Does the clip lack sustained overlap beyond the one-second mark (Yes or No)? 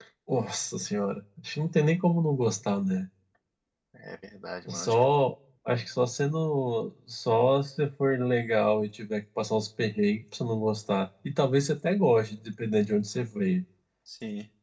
Yes